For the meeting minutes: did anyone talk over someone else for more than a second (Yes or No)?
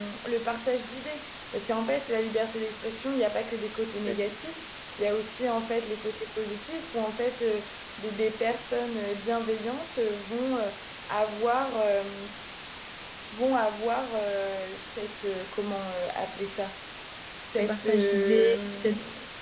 Yes